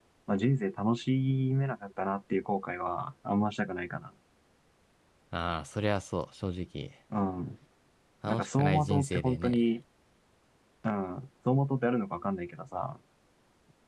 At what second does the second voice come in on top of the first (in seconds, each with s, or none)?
8.3 s